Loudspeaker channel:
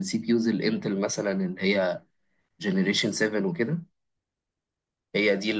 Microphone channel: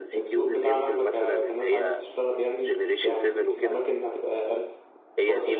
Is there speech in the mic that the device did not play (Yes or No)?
Yes